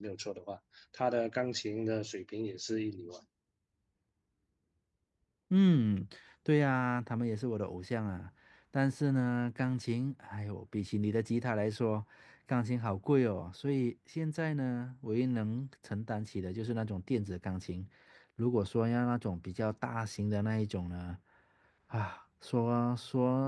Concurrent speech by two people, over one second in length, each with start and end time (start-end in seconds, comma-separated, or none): none